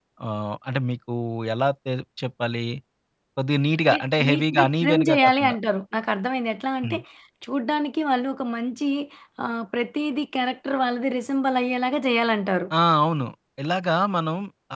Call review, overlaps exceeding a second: present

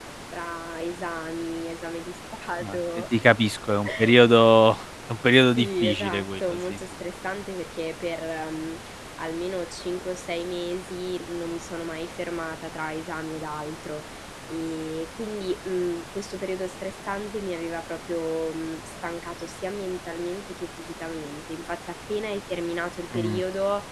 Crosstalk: present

